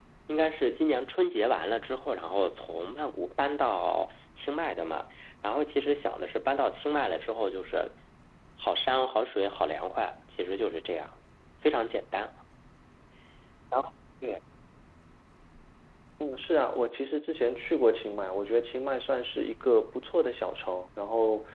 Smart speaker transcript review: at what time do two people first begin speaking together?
none

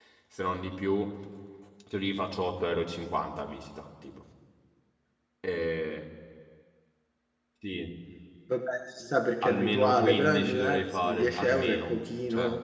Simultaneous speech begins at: 9.4 s

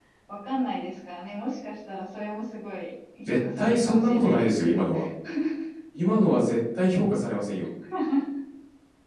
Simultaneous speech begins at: 3.2 s

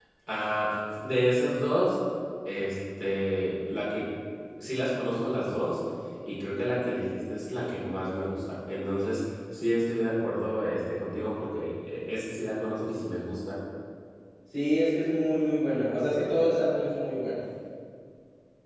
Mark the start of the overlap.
none

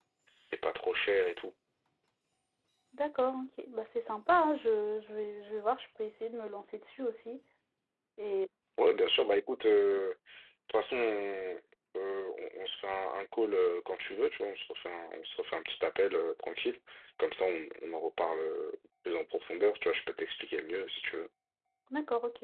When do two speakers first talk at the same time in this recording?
none

